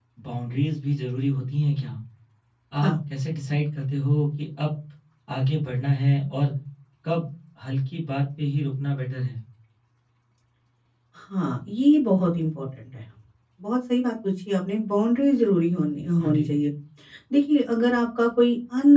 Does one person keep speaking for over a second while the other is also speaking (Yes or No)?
No